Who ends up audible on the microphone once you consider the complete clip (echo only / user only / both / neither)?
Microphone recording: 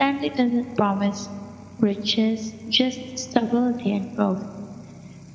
user only